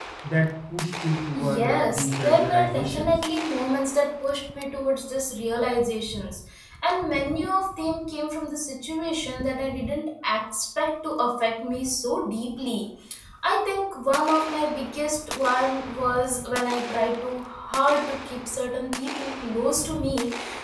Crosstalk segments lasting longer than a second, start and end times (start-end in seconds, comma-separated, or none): 1.3-3.1